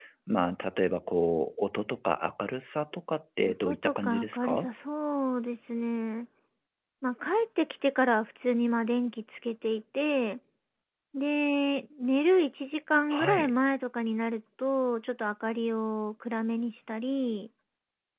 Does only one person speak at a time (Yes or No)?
No